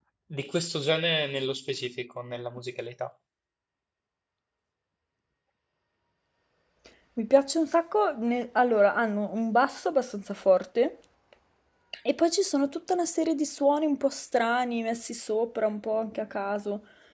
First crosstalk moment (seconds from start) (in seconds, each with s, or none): none